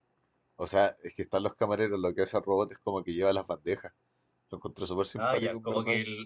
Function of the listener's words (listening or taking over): taking over